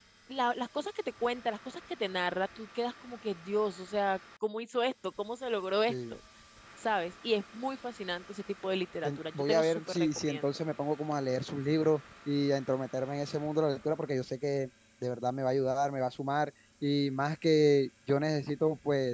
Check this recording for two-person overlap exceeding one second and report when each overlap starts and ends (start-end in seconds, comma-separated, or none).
9.0-10.4